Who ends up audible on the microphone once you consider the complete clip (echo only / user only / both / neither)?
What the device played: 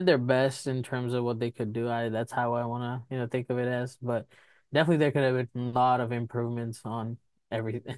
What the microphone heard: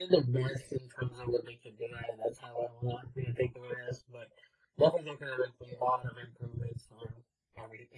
echo only